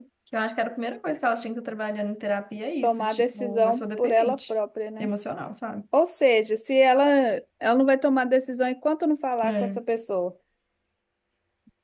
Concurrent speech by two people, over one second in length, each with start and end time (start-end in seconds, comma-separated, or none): 2.8-4.5